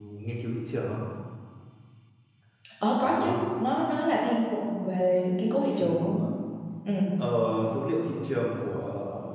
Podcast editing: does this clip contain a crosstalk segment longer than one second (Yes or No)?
No